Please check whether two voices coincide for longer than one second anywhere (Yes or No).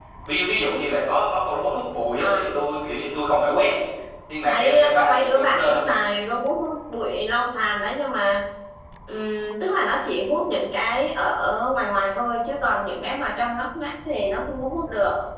Yes